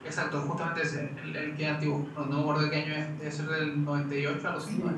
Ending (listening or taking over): taking over